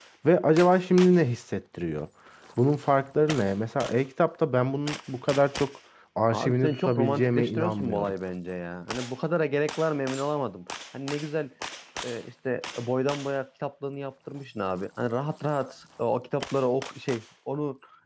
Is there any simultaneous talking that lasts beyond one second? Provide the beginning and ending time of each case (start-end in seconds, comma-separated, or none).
6.3-8.1